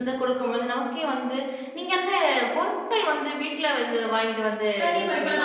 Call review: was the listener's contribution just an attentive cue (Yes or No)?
No